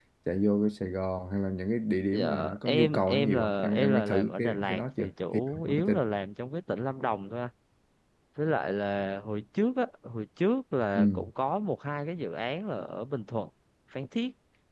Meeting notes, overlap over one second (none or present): present